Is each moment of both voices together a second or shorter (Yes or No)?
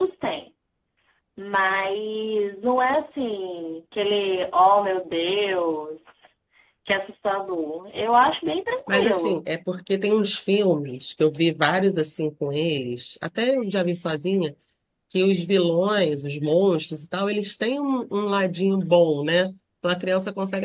Yes